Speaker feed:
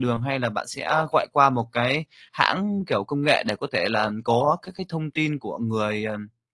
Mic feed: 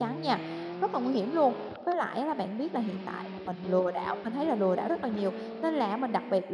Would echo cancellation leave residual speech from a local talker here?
Yes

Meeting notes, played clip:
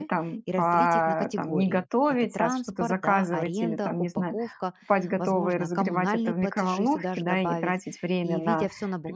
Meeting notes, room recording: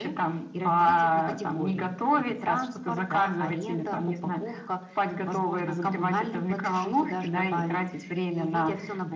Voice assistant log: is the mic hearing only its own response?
Yes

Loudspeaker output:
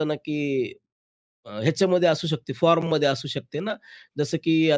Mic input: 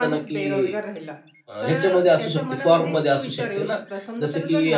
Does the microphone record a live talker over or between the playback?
Yes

